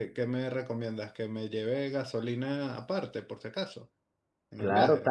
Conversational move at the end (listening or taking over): taking over